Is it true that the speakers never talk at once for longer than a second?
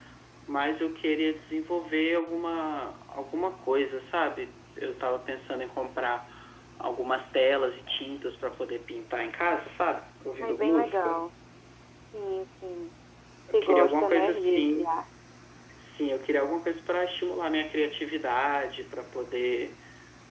No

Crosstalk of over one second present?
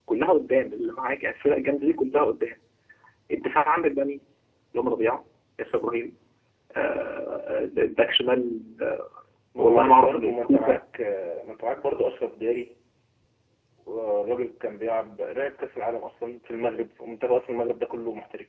Yes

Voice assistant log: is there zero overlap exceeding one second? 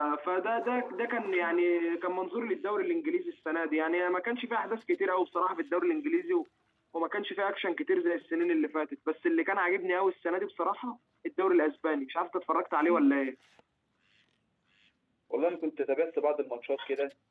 Yes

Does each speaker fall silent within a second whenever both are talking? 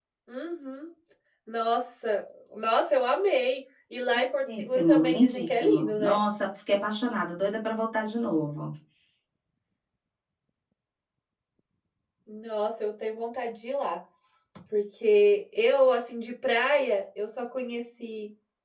No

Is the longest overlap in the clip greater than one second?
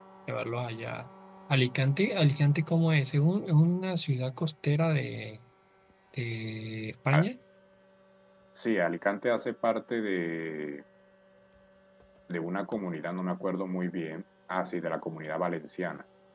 No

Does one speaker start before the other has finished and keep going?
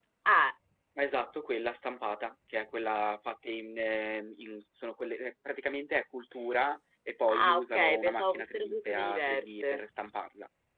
Yes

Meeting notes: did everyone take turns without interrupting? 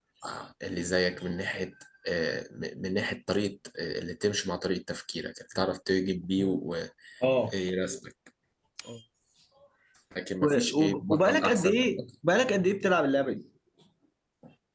No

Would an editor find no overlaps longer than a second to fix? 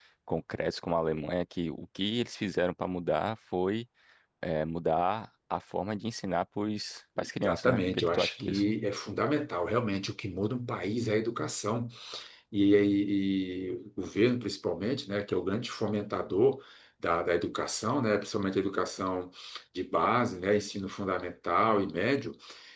No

